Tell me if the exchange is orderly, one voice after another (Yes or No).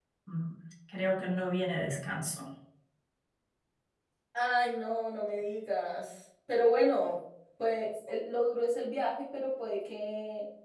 Yes